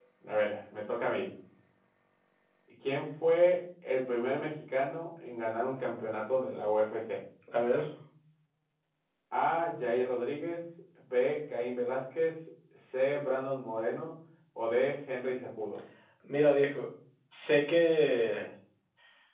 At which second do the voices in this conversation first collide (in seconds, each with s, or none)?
none